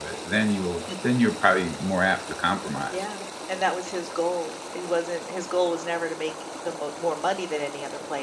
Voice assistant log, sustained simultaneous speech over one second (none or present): none